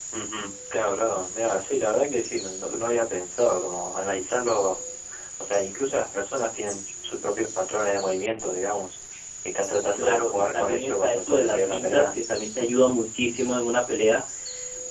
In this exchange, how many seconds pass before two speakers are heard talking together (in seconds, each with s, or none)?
10.0 s